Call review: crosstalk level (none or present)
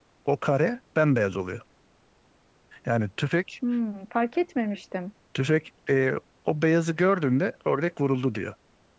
none